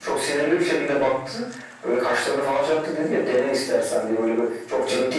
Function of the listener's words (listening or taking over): listening